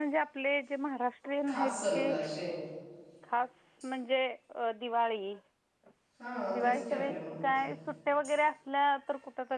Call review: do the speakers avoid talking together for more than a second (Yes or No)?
No